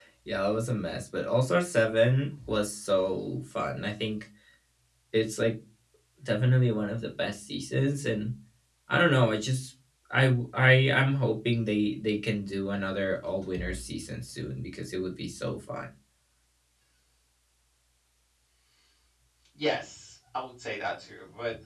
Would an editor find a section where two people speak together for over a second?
No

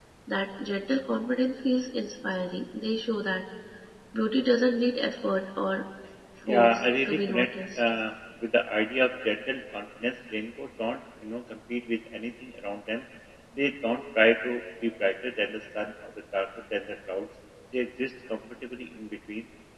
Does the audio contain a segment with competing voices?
Yes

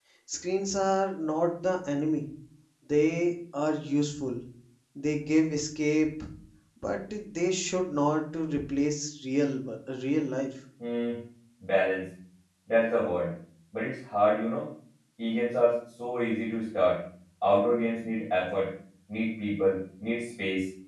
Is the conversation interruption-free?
Yes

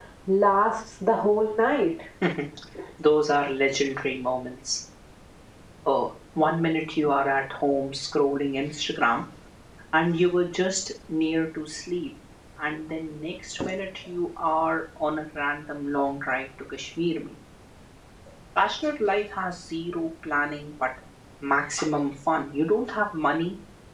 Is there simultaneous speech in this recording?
No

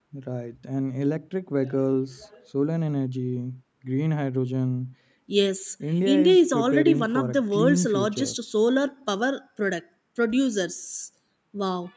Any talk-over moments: Yes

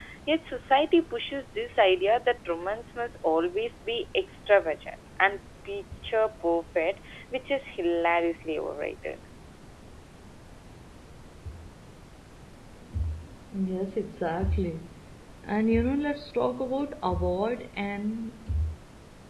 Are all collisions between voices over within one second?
Yes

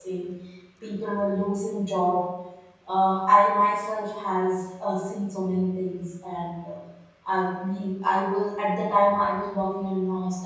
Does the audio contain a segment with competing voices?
No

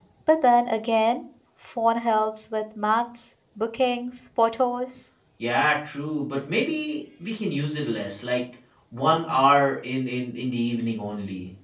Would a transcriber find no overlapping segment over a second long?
Yes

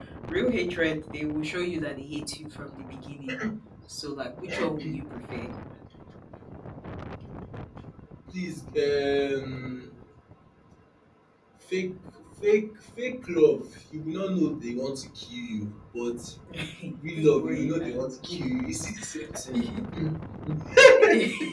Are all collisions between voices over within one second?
No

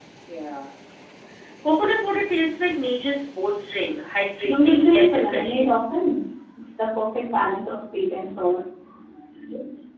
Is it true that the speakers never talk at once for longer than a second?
No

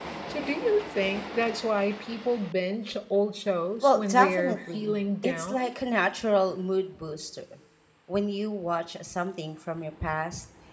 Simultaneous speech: Yes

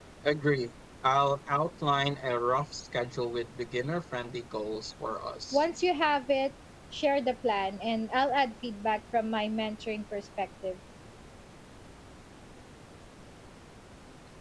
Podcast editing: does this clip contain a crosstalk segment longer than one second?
No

